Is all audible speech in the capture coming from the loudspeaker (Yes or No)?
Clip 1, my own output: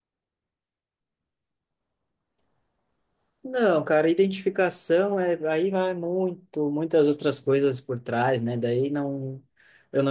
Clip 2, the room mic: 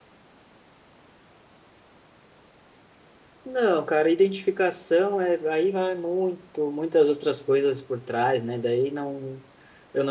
Yes